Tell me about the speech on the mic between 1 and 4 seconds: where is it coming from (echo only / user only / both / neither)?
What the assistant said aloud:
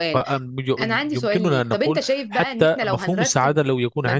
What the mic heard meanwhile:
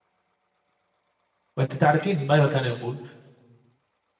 user only